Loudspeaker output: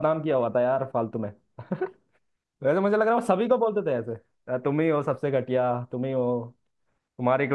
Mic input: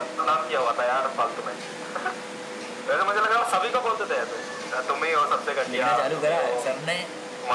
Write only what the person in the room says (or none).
लिखना चालू करा सर ने